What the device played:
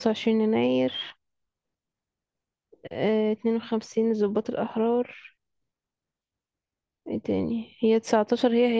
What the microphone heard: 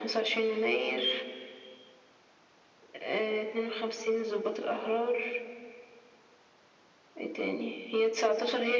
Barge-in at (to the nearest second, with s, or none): none